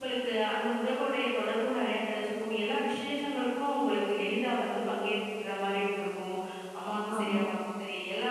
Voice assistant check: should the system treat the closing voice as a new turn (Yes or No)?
No